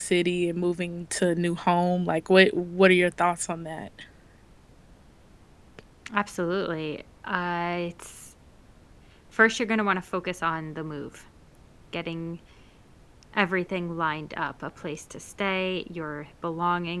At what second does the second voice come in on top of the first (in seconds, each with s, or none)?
none